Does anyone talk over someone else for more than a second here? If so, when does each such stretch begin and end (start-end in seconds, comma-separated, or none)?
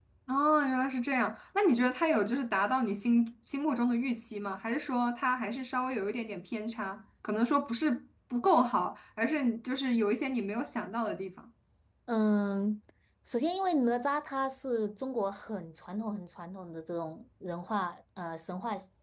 none